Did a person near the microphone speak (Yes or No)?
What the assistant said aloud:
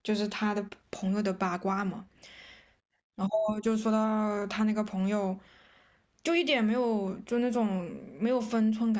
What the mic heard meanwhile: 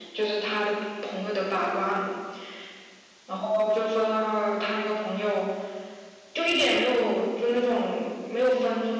No